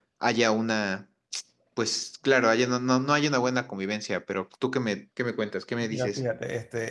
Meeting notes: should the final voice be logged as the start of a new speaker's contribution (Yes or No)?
Yes